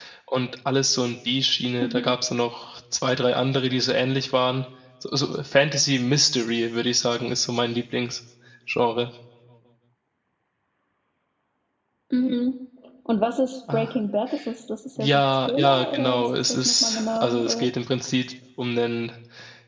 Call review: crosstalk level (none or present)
present